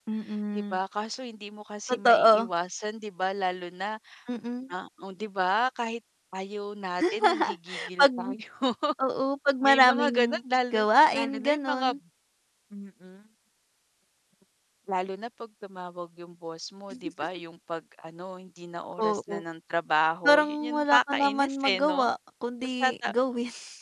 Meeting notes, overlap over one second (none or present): present